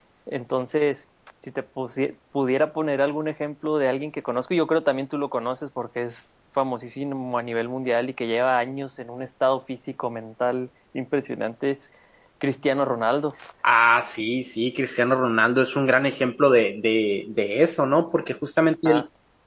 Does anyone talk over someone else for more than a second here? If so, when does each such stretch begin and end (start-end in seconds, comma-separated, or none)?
none